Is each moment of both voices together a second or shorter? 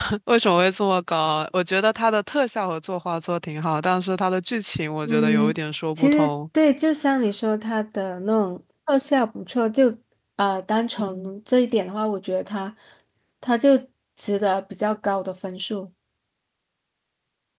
Yes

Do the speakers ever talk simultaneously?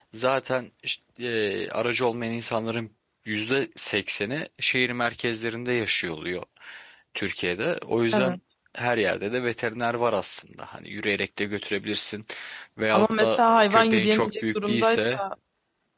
Yes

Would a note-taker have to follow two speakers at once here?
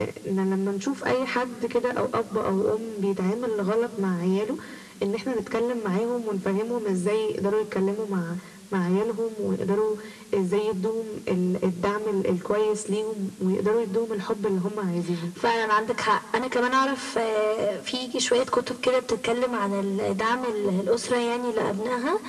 No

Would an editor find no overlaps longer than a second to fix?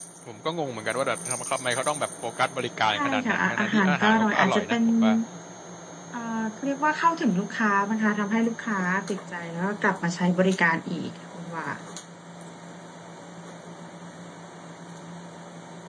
No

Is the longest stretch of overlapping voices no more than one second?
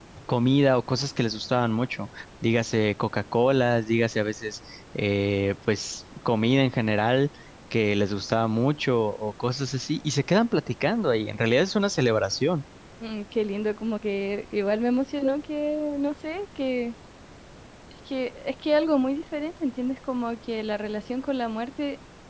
Yes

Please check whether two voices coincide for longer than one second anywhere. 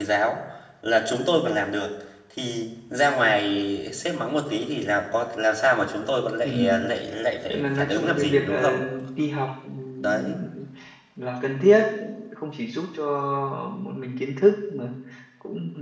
Yes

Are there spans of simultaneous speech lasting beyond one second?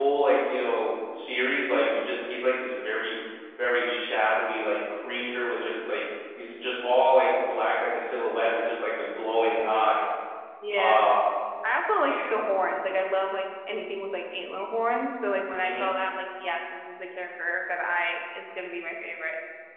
No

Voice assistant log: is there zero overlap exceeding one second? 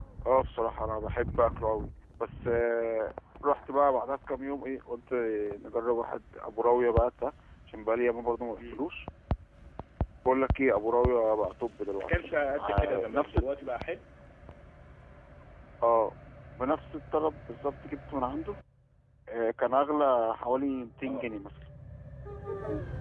No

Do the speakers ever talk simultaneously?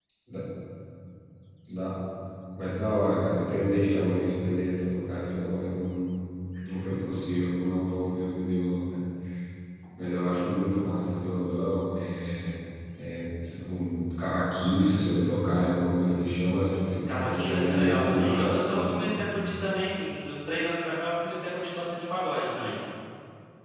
Yes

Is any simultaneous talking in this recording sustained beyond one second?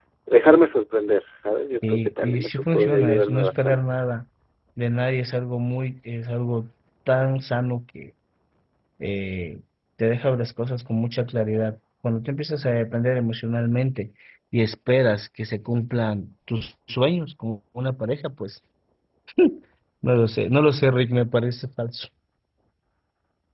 Yes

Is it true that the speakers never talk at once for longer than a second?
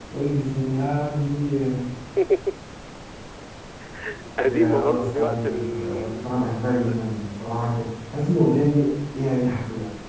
No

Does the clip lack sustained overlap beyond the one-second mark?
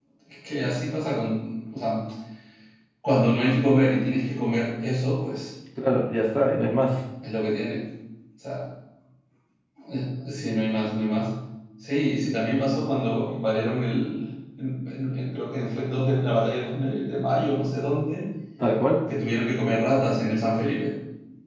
Yes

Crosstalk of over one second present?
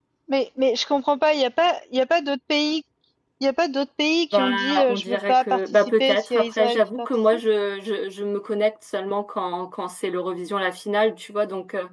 Yes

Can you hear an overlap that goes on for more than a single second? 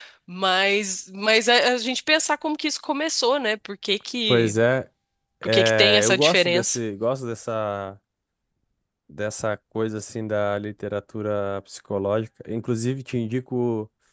Yes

